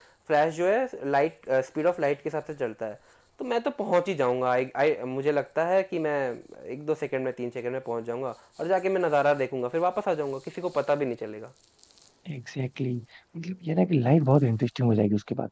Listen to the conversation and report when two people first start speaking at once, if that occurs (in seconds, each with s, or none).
none